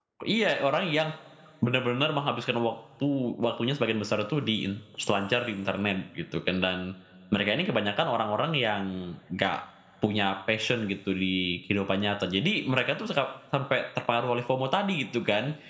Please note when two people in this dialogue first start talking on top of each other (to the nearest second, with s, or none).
none